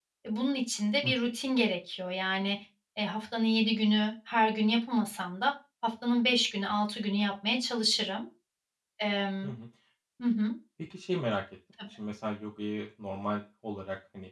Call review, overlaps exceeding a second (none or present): none